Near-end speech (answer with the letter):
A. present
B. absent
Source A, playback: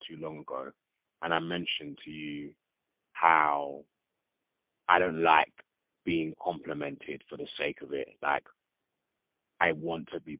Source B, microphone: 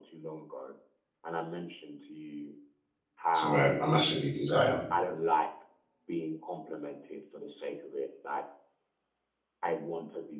A